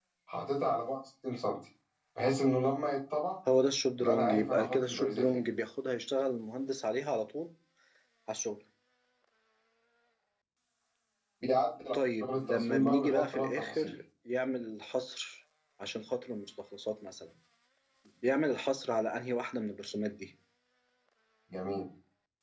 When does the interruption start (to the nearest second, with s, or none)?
4 s